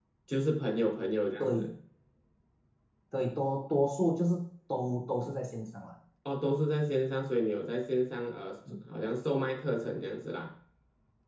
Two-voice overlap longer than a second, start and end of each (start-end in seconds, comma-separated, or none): none